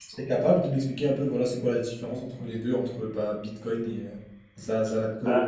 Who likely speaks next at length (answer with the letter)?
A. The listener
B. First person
A